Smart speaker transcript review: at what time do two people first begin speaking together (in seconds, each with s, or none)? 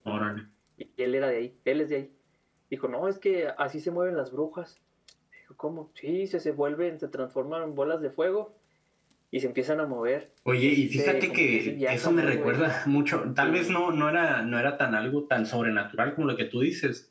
10.6 s